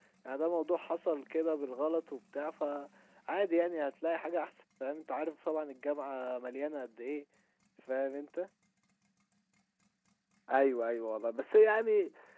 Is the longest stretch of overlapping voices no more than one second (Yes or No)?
Yes